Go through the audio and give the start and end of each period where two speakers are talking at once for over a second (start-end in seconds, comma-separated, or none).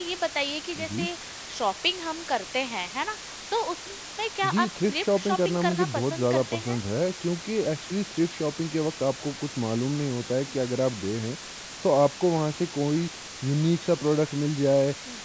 4.5-6.8